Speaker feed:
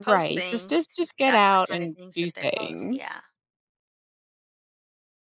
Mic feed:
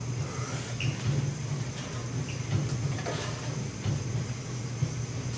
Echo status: none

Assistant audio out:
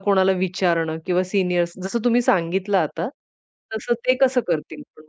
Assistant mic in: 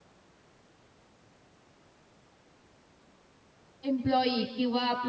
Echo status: none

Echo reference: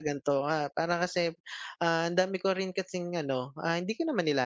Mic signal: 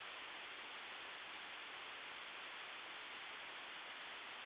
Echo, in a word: none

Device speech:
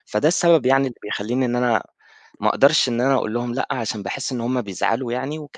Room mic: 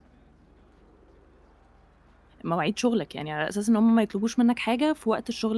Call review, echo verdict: none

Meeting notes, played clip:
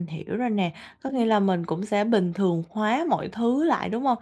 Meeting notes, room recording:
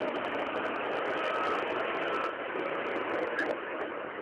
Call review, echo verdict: none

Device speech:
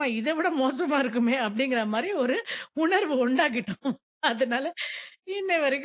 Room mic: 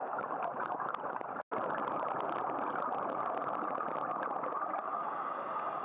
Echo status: none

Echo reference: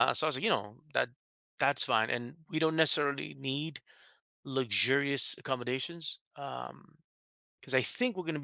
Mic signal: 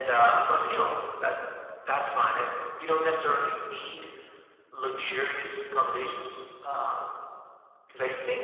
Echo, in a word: present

